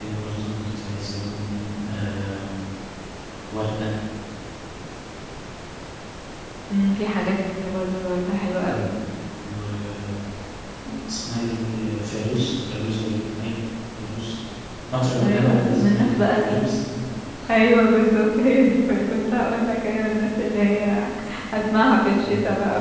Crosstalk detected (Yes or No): Yes